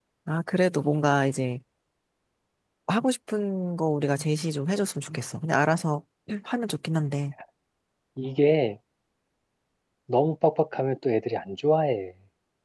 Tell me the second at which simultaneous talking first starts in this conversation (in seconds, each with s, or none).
none